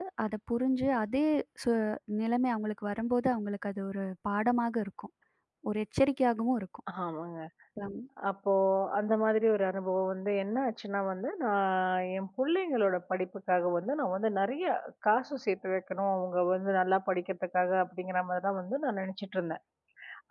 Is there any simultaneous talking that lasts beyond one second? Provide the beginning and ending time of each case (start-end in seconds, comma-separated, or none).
none